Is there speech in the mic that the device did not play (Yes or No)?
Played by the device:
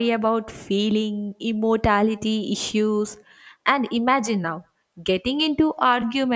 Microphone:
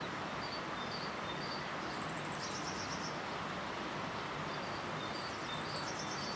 No